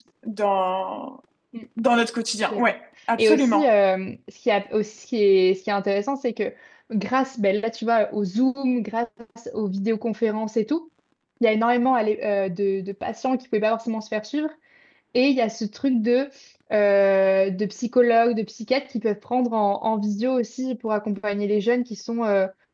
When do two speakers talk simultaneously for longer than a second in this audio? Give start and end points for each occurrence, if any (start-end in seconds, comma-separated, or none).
none